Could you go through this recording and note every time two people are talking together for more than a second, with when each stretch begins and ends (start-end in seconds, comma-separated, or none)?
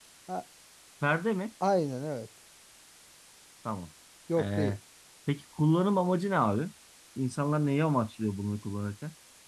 none